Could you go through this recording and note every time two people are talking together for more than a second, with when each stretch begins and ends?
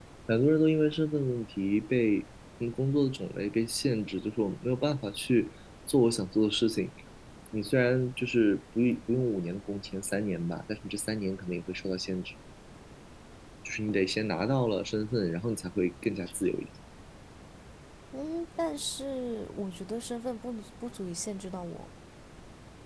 none

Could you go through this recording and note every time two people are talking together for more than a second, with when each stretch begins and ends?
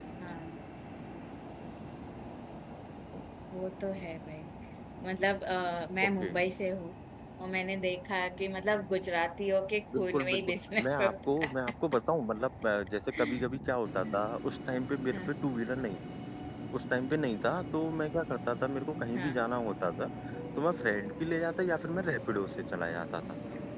10.0-11.5

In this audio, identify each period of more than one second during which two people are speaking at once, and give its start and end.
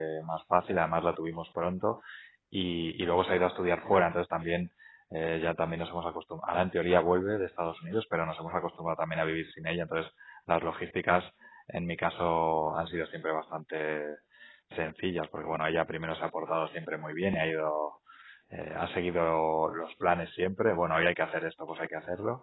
none

